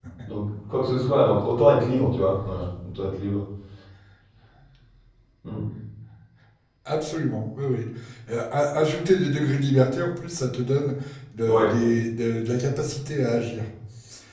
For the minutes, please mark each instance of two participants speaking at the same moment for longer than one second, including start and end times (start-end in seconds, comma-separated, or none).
none